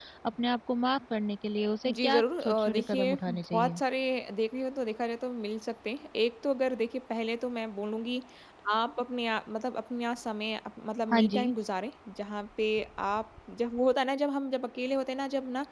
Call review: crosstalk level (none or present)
present